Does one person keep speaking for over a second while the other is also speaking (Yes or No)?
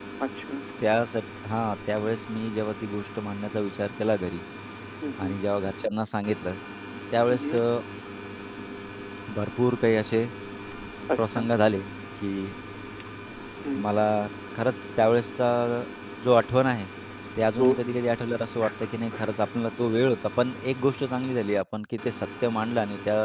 No